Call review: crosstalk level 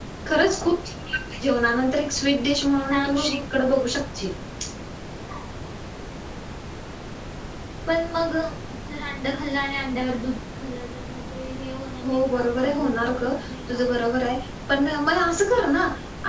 present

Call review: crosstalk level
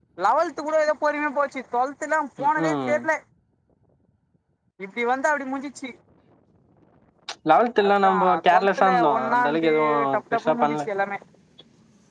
present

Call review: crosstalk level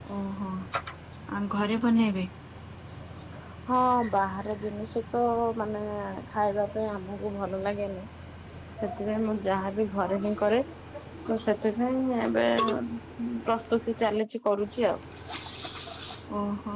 none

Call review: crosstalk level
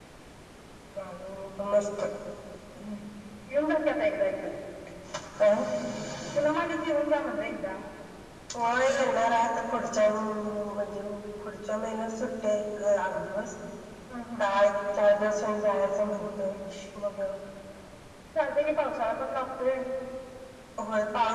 none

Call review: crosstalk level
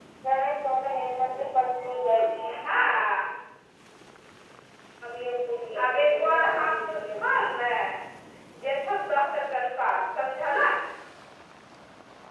present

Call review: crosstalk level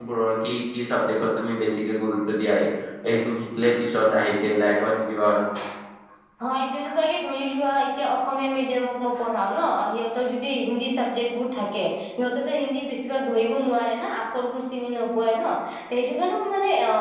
none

